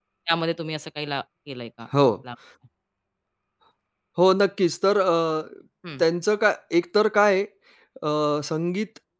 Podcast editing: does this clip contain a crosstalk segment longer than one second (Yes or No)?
No